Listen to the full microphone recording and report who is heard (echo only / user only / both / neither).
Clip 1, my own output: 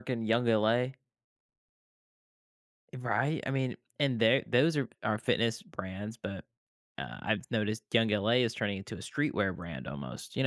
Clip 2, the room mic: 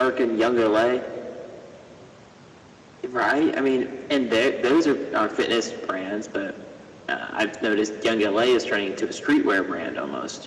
echo only